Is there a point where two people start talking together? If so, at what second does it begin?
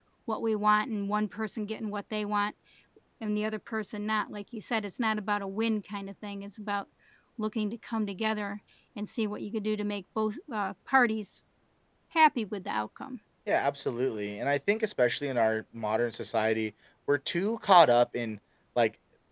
none

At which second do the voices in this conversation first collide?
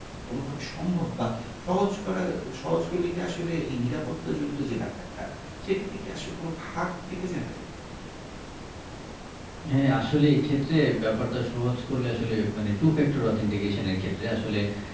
none

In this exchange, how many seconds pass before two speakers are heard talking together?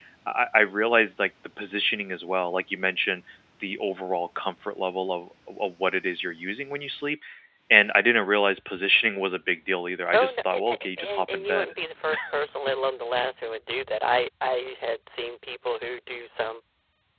10.1 s

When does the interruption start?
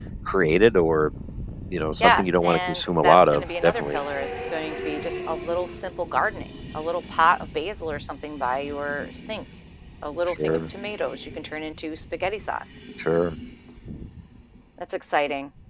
2.0 s

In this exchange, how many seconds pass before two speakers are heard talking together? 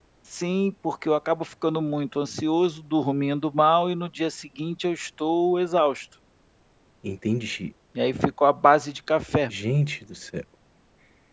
none

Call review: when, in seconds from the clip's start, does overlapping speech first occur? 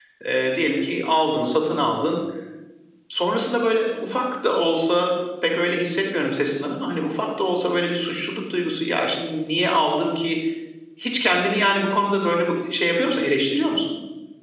none

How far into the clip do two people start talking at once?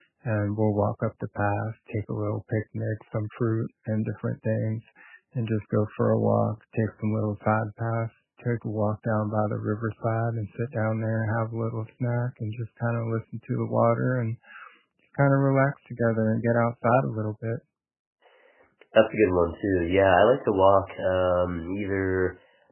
none

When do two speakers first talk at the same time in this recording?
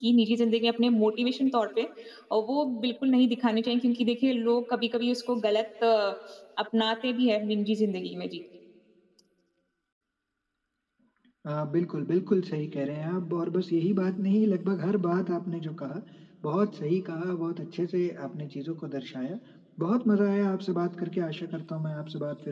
none

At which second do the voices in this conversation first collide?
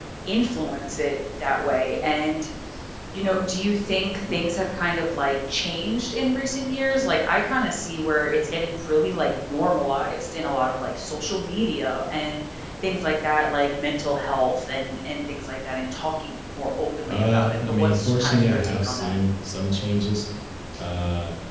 17.1 s

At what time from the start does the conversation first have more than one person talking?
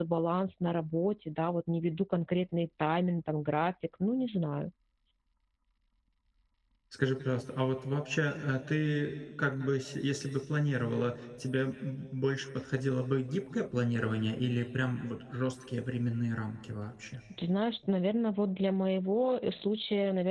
none

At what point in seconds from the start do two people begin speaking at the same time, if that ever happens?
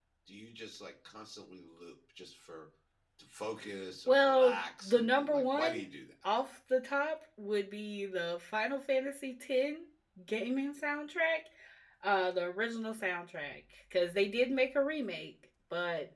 4.1 s

